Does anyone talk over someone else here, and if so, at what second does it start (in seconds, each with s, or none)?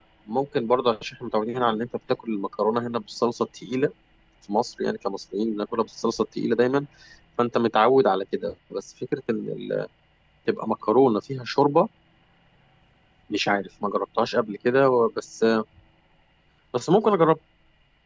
none